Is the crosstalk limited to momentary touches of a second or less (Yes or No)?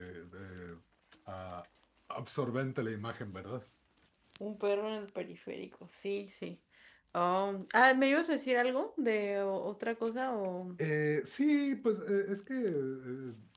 Yes